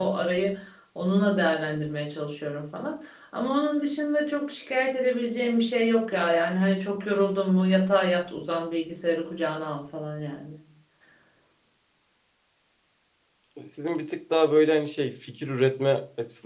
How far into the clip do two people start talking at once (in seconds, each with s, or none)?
none